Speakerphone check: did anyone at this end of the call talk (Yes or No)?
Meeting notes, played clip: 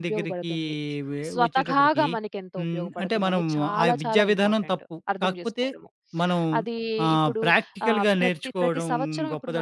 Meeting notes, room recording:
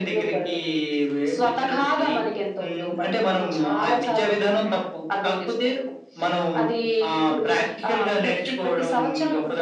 No